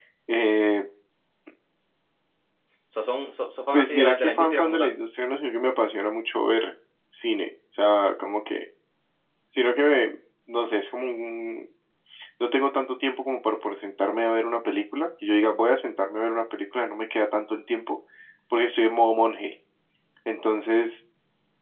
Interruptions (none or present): present